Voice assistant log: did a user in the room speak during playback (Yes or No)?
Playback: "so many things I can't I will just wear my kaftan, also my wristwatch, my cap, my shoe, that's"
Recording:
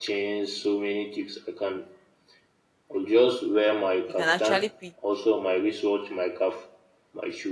Yes